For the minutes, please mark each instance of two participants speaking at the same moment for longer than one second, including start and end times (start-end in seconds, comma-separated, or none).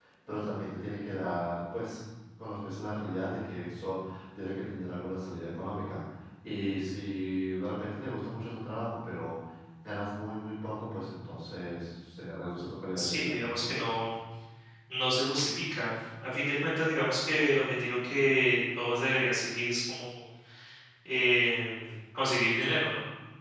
none